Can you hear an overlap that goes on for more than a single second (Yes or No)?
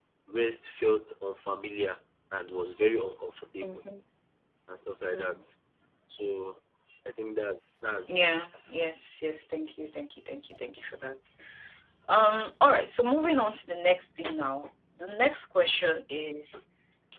No